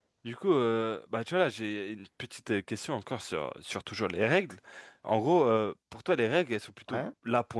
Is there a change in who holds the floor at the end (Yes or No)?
No